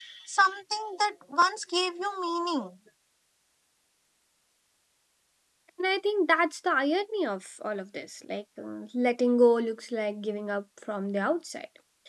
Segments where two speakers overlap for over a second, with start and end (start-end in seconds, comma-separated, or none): none